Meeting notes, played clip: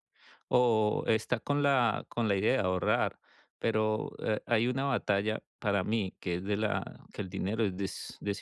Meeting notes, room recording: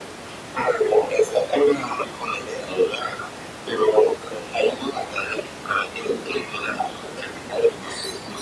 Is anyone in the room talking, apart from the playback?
No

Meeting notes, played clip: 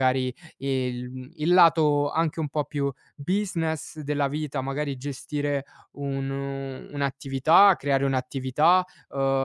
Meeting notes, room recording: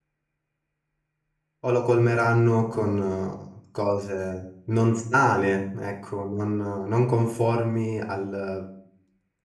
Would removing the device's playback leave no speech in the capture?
No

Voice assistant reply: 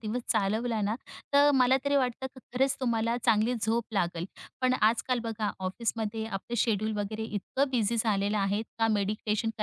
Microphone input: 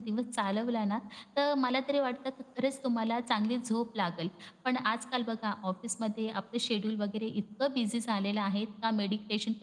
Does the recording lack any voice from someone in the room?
Yes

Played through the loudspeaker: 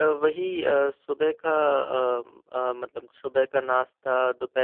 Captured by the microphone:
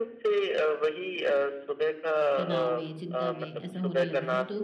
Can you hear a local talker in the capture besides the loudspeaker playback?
Yes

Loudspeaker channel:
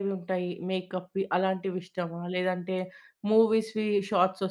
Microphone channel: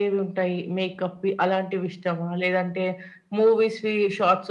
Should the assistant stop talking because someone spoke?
No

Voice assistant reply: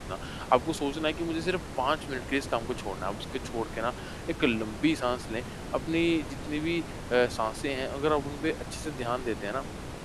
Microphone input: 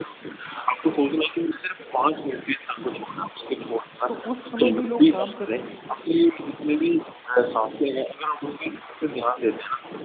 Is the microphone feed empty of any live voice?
No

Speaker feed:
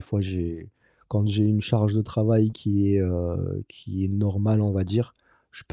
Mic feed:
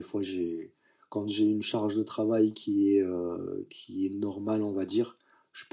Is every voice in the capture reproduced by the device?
Yes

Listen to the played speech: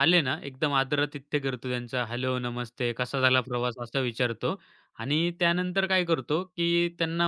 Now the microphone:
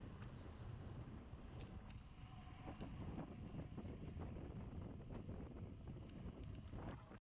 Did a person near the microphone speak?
No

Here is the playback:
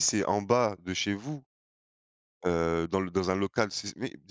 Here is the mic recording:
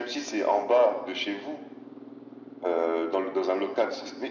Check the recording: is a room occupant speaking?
No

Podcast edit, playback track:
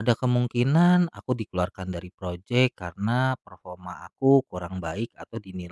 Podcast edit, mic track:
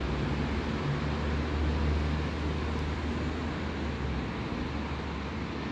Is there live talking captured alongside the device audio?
No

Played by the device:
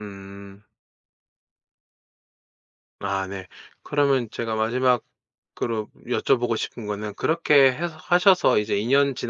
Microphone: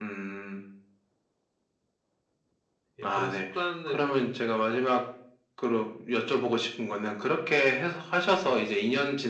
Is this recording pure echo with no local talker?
No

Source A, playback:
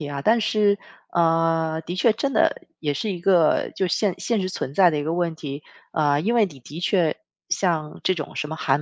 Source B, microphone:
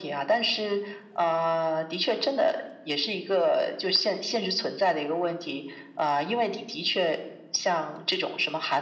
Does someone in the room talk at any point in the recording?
No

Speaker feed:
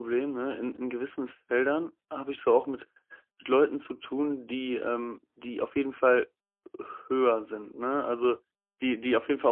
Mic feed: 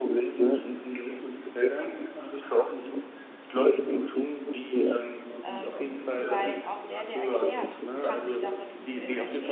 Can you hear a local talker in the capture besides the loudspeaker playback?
Yes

